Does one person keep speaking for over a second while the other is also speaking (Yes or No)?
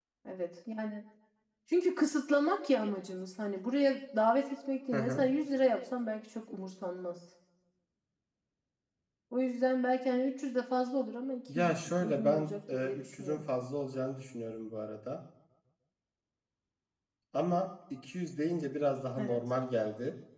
Yes